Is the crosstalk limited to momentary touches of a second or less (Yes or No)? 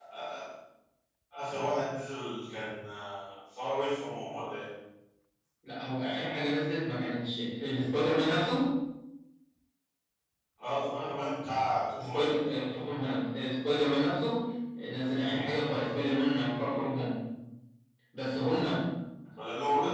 Yes